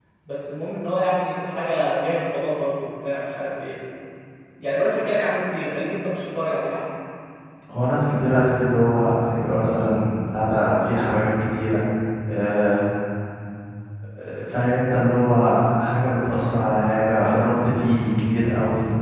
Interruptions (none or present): none